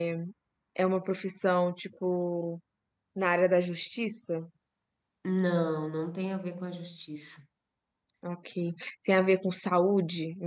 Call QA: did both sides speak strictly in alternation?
Yes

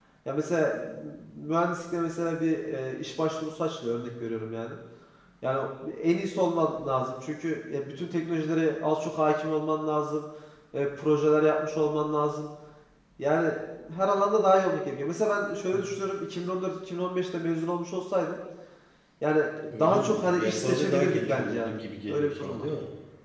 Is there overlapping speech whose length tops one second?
Yes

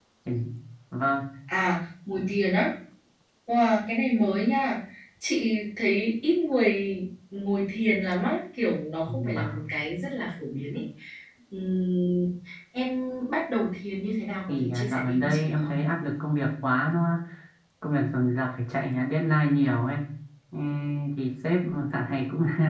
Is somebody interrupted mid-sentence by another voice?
Yes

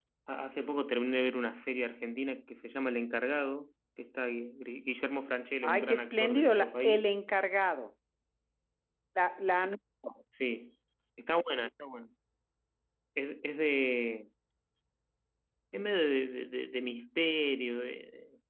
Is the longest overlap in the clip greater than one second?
Yes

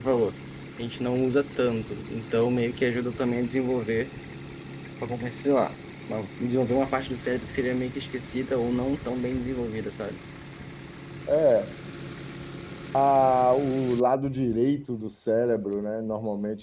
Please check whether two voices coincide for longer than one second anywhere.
No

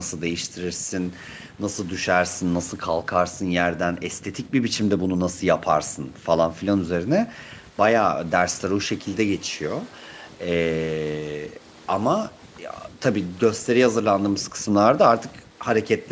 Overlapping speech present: No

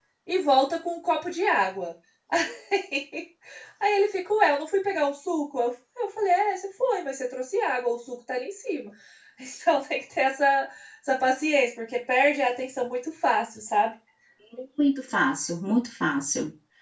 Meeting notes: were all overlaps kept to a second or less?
Yes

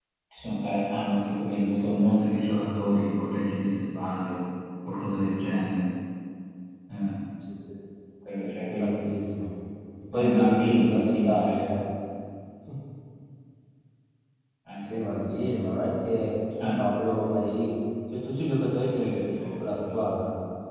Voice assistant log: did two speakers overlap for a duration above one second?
Yes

